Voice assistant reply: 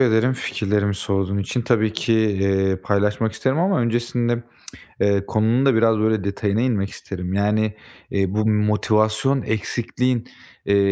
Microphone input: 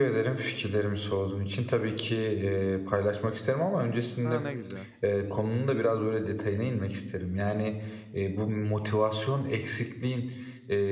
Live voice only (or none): A, ne güzel.